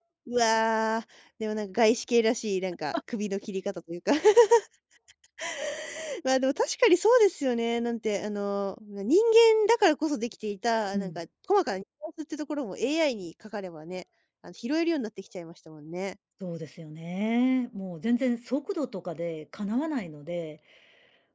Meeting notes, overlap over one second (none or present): none